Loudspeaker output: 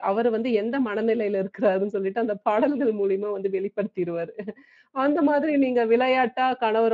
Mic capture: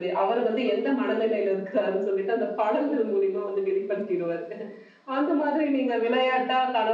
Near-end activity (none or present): none